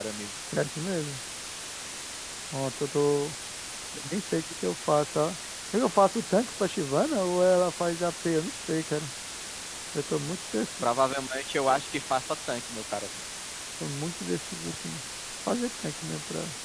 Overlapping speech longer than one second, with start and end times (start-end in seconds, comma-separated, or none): none